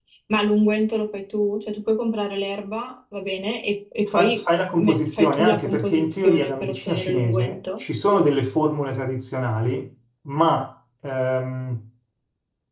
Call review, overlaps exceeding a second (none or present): present